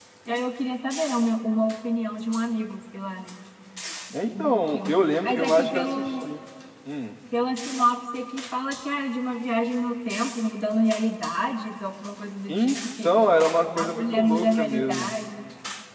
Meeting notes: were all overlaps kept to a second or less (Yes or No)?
No